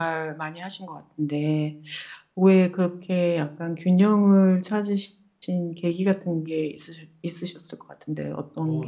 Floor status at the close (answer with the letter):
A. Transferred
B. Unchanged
A